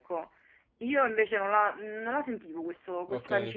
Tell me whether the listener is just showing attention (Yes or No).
No